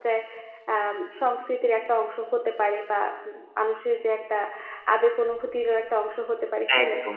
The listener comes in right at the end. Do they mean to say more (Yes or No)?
Yes